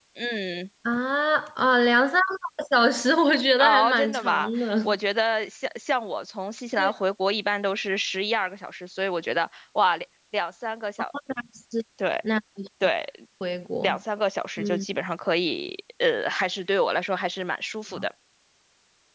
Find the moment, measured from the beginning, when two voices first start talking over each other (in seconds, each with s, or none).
3.6 s